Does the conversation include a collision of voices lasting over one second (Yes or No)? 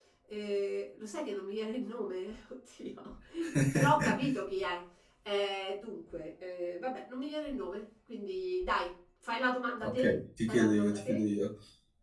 Yes